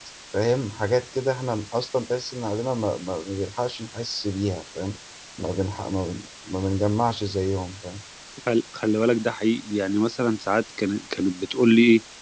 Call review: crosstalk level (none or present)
none